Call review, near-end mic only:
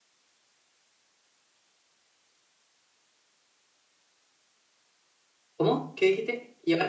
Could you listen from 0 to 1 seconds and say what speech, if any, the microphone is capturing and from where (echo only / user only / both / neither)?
neither